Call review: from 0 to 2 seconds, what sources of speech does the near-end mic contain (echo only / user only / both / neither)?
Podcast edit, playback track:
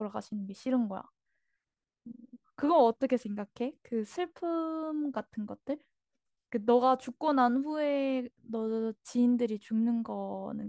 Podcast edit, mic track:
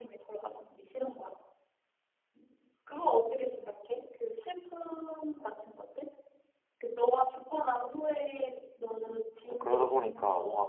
echo only